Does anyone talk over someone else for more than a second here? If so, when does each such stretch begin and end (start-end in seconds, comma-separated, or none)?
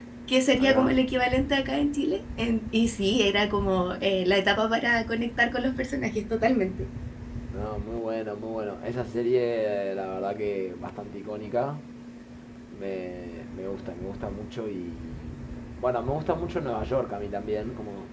none